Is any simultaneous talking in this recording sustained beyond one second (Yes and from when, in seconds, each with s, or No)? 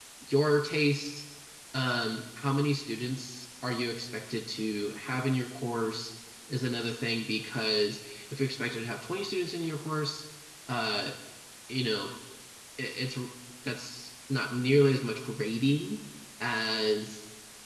No